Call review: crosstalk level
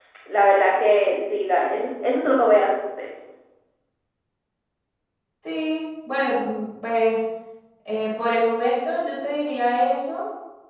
none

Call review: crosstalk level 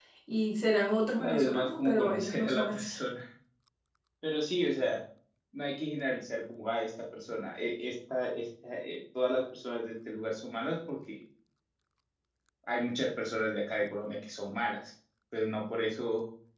present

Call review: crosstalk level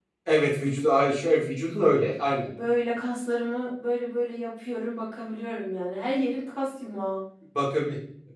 none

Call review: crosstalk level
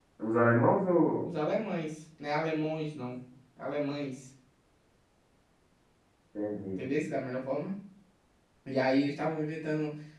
none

